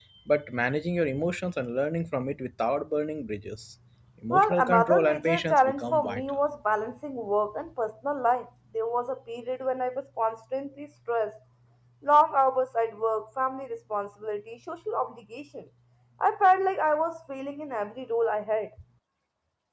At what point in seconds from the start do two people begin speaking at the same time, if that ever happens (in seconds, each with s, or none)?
4.3 s